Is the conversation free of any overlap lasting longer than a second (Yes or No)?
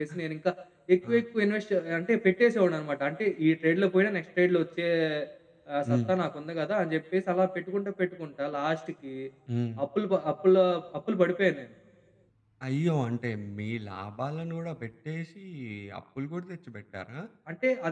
Yes